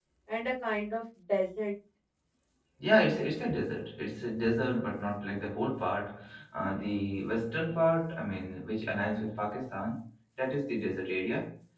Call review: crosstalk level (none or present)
none